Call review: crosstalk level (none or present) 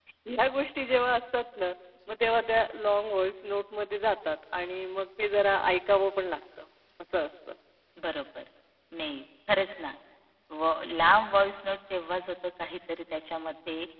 none